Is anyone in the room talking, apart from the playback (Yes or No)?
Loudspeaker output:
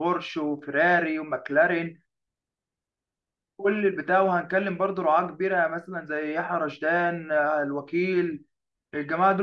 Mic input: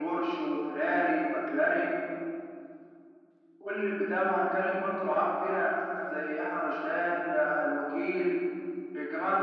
No